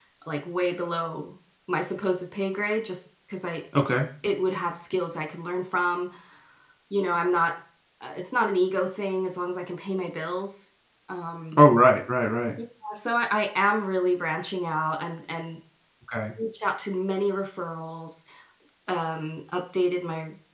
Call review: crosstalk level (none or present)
none